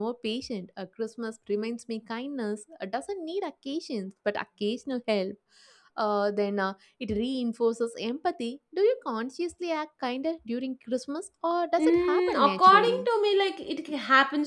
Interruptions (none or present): present